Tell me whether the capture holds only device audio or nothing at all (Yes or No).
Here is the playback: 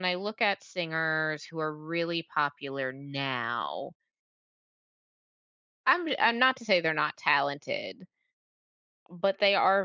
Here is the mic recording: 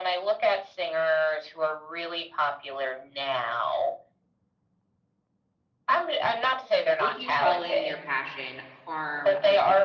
No